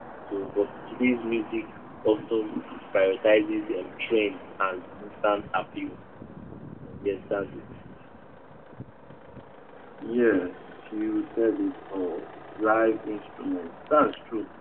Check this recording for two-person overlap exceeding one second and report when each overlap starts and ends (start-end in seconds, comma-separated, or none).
none